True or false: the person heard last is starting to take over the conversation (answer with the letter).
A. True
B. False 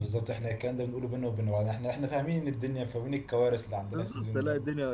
A